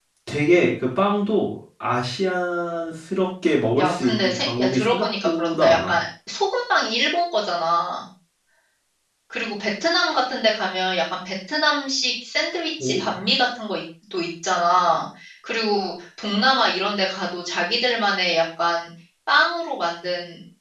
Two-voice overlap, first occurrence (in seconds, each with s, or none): 3.8 s